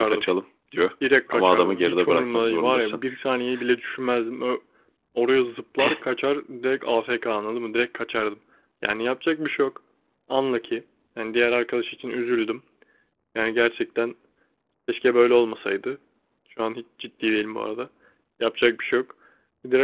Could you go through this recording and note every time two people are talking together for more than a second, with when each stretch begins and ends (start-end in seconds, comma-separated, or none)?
1.3-3.0